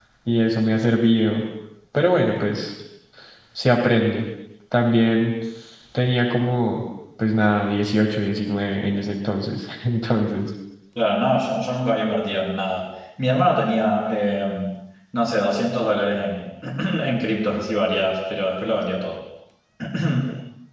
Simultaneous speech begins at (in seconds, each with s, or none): none